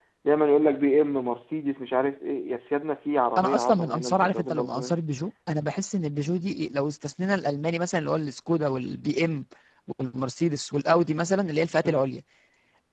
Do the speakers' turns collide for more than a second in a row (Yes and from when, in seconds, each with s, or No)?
Yes, from 3.4 s